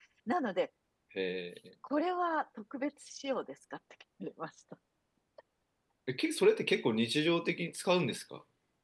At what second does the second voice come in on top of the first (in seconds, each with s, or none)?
none